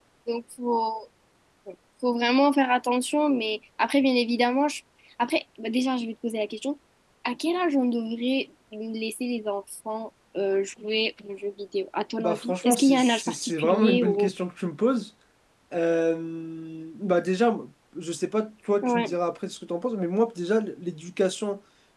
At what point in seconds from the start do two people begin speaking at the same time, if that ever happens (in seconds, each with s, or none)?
12.2 s